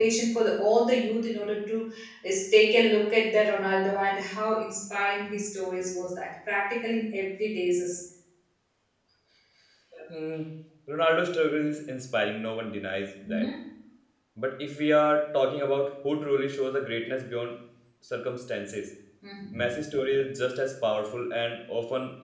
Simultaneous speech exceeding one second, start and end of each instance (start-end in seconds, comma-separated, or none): none